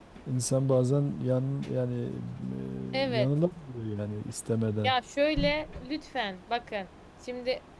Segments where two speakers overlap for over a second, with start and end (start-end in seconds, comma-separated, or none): none